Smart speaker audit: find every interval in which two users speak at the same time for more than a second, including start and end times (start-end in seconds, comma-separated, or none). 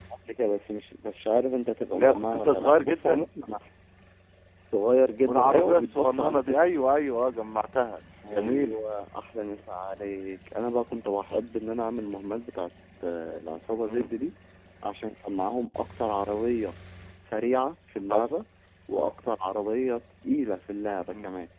1.9-3.3, 5.3-6.6